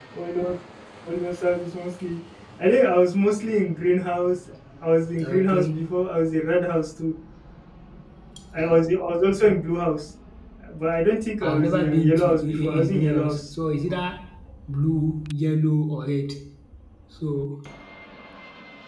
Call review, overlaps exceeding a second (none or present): present